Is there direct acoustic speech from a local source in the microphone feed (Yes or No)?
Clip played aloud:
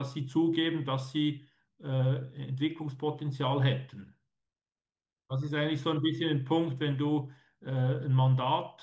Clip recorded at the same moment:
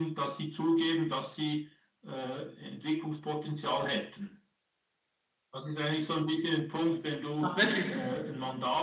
Yes